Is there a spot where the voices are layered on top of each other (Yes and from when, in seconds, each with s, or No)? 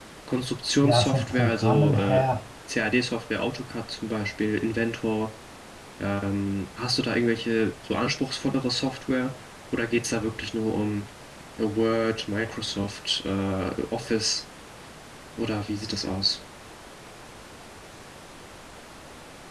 Yes, from 0.8 s